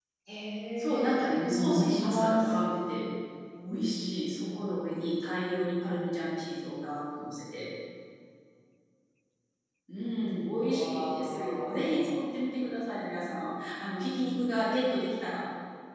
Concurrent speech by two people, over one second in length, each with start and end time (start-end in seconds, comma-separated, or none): 0.8-2.5, 10.6-12.2